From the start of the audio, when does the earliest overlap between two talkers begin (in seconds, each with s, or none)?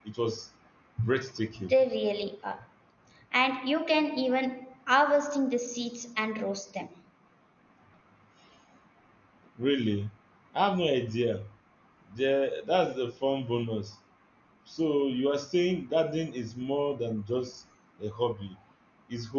none